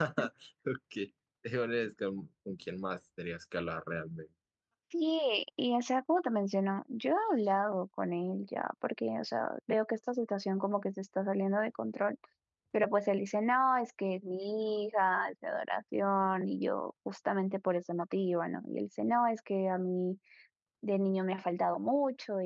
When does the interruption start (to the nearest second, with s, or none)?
none